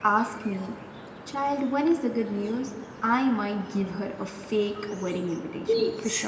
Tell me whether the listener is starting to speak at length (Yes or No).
Yes